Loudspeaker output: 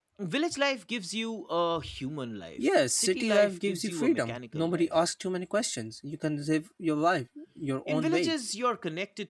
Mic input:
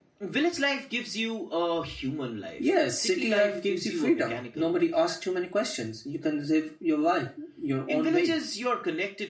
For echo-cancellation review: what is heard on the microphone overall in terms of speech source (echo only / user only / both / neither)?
echo only